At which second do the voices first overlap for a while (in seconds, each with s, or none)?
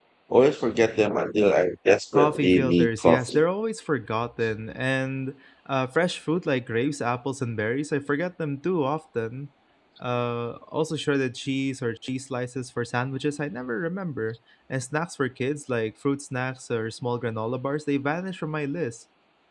2.1 s